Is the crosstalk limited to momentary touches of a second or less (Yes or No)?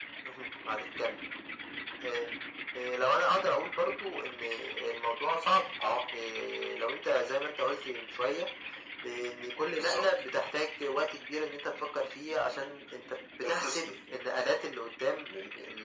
Yes